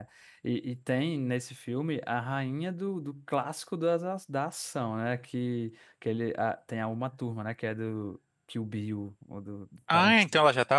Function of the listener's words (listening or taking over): taking over